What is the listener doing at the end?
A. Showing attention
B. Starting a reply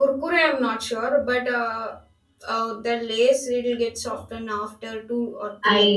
B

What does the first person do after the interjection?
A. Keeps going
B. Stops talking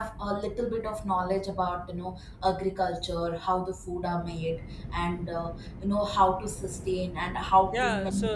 B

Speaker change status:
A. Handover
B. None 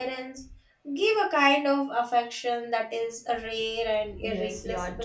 A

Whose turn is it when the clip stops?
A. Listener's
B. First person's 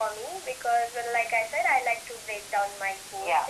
B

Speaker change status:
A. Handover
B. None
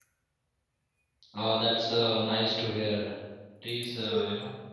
B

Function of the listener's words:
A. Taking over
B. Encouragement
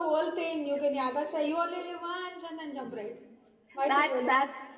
A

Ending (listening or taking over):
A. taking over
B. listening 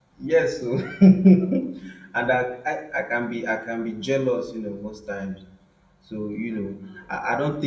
B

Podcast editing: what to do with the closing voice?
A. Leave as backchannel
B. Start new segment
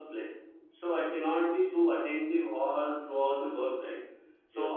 A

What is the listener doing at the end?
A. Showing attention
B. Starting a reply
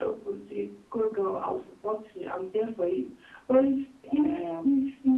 A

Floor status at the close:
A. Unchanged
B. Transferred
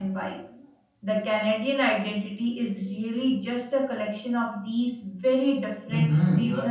B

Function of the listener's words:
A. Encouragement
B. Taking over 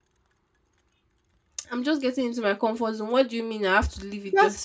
B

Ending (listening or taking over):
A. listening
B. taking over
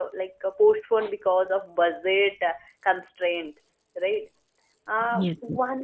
A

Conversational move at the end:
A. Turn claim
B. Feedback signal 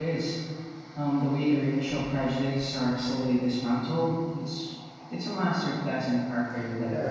A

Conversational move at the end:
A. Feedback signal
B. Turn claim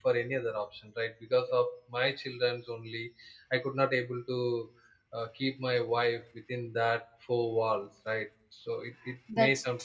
A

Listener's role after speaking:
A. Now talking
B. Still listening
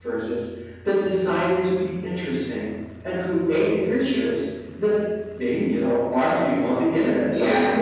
A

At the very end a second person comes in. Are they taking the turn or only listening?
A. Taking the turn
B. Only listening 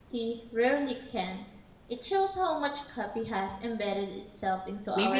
A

